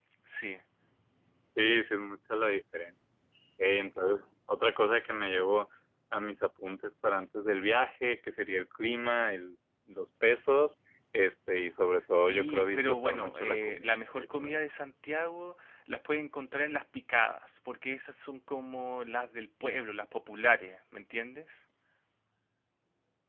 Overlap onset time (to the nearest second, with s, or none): 12 s